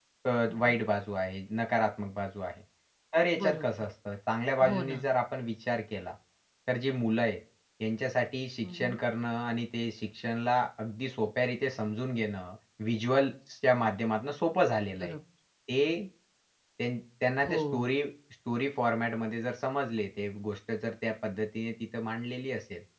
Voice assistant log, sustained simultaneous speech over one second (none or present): none